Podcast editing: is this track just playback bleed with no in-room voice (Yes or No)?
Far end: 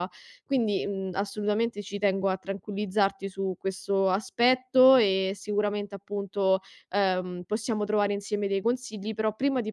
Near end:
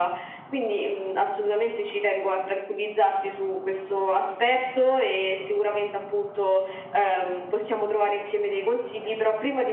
Yes